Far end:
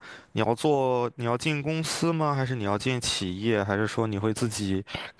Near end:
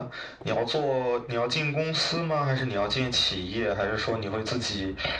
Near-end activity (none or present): none